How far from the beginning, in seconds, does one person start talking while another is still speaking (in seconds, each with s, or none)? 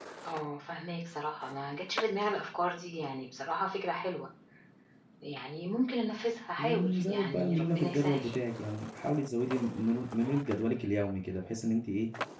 6.6 s